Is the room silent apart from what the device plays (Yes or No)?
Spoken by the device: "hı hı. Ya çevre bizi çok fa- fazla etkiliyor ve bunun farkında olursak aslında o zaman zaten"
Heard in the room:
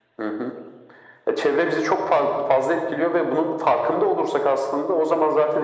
Yes